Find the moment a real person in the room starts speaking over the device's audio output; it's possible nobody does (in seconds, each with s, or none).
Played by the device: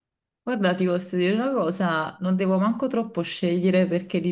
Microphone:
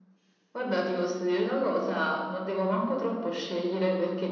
none